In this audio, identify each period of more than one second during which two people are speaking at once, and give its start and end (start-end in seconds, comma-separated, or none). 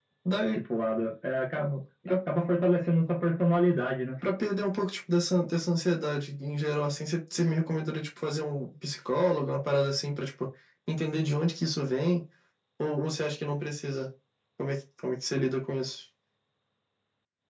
none